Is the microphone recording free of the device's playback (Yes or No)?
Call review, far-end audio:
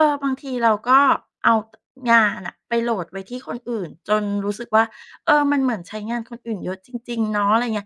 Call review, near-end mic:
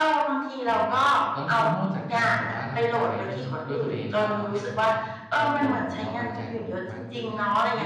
No